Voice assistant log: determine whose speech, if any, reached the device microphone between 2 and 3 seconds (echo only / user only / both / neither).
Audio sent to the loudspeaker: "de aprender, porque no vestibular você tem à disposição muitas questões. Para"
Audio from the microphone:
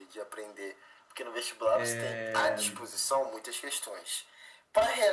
both